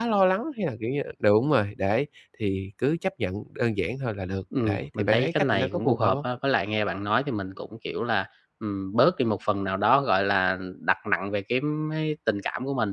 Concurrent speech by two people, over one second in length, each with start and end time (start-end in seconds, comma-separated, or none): 4.7-6.2